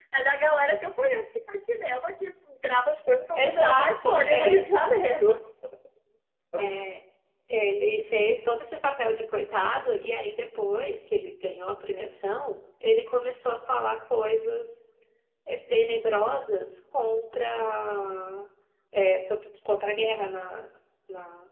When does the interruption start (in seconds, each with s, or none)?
3.4 s